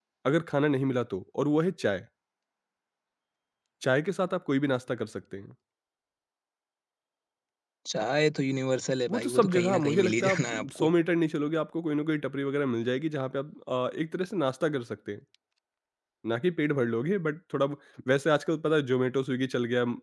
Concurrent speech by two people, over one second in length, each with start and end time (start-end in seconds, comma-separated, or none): 9.1-10.9